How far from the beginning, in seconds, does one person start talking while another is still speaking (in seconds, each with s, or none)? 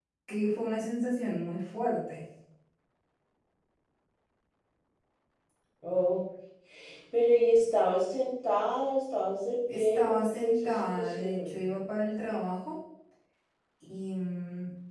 9.7 s